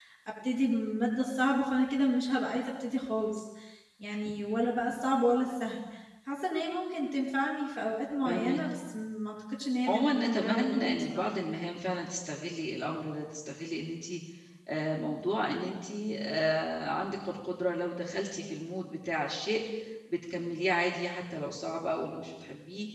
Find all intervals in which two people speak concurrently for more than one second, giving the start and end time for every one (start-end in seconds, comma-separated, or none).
9.9-11.3